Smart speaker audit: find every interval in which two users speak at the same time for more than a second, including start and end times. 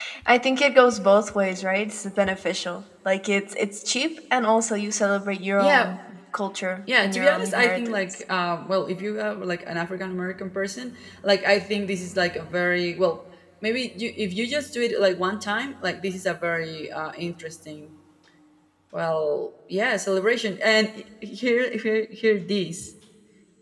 7.0-8.2

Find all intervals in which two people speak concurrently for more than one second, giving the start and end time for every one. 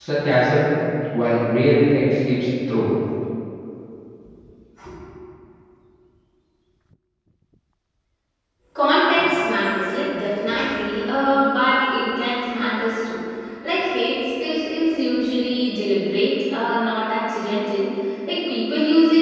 none

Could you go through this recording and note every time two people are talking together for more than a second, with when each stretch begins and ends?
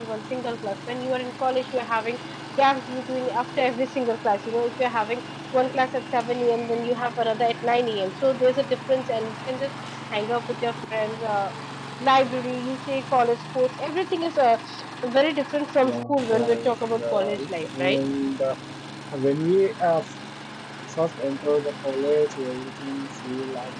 15.8-18.0

